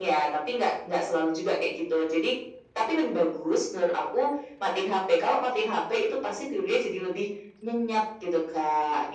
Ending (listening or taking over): taking over